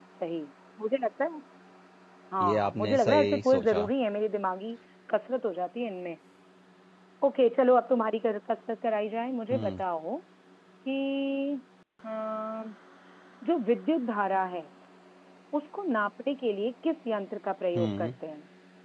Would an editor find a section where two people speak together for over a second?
Yes, from 2.4 s

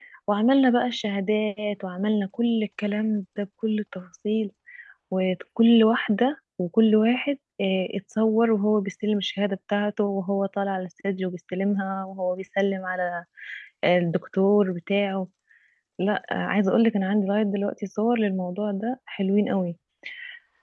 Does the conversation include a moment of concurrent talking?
No

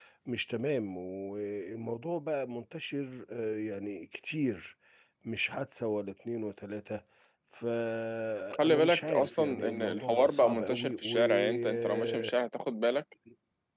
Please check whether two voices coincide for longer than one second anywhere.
Yes, from 8.5 s

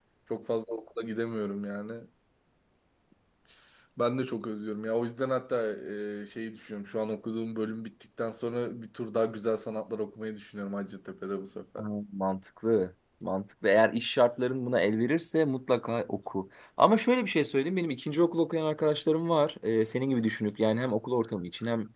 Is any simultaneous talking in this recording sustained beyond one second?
No

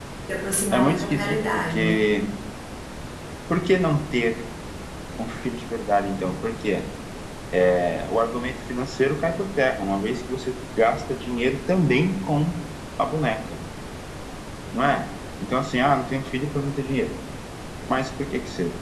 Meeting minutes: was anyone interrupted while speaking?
Yes, from 0.7 s

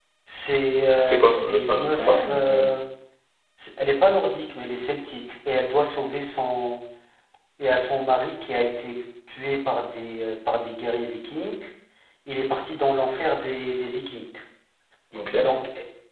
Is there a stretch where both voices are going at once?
Yes, from 1.1 s

